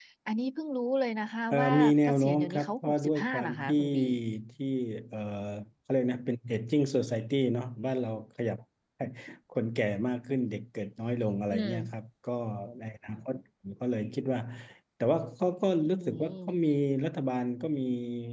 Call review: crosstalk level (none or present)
present